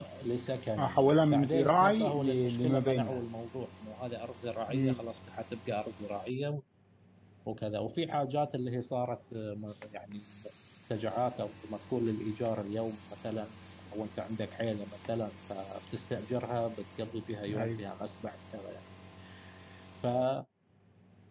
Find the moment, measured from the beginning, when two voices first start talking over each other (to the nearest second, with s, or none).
1 s